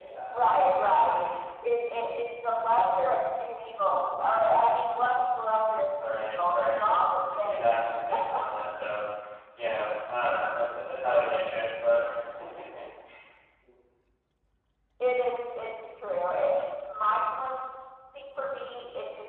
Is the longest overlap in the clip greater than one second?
Yes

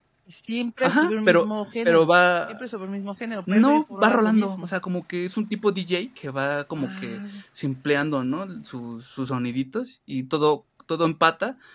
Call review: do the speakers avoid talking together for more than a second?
No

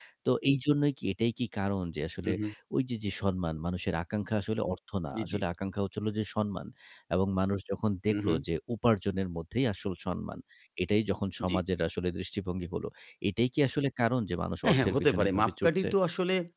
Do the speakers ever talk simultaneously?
Yes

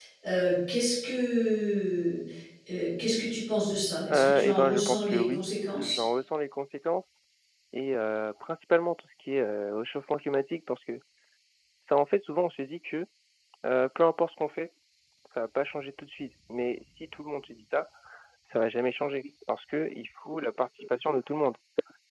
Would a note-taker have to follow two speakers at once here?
Yes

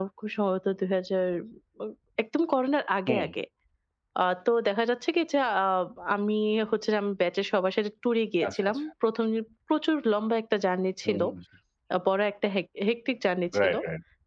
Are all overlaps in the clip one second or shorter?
Yes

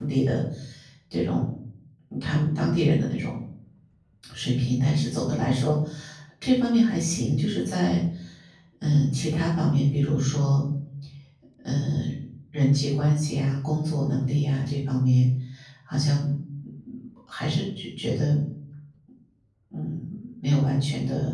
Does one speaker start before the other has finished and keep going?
No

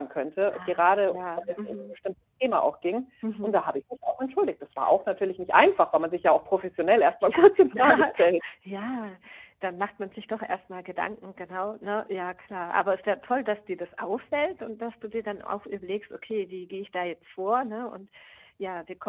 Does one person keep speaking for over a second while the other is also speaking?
Yes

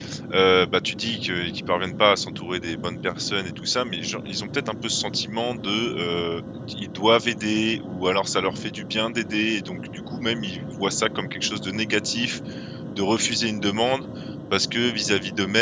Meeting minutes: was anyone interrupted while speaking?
No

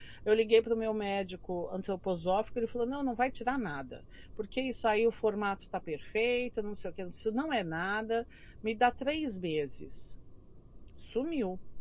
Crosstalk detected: No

